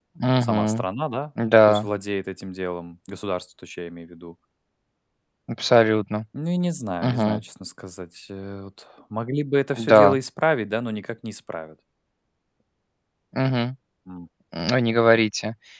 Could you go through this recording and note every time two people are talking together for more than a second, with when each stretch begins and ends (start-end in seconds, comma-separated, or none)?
none